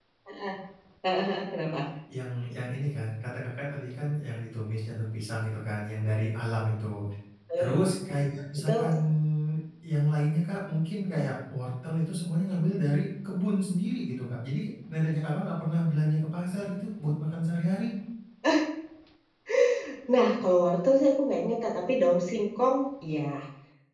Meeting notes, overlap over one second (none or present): none